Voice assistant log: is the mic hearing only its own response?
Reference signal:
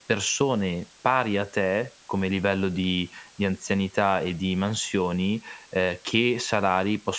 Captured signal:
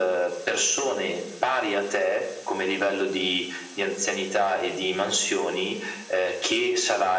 Yes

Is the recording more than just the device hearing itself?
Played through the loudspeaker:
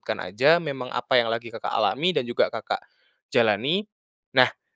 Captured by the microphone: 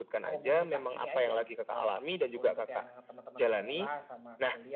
Yes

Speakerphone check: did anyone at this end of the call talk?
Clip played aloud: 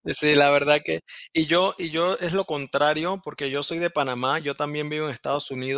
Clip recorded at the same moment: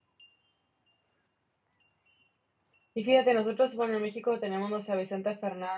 Yes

